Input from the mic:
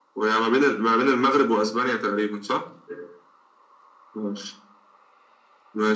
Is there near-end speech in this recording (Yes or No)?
No